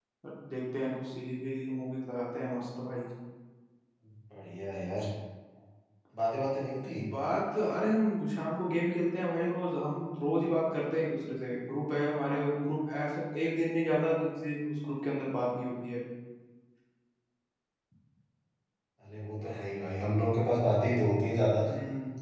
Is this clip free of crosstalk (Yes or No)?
Yes